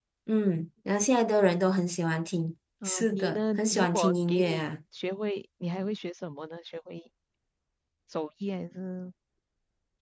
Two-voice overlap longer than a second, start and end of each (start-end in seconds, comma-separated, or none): 2.8-4.6